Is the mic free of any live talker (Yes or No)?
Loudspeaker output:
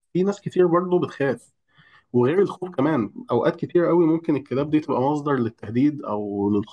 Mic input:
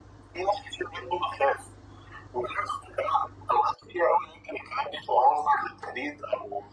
Yes